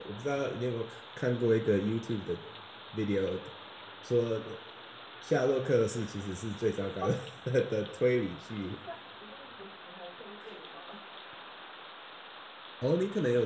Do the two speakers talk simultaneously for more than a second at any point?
No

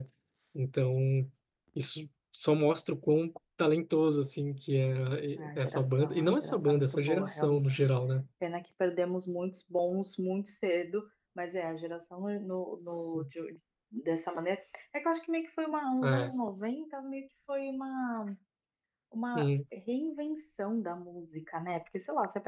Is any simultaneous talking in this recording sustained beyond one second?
Yes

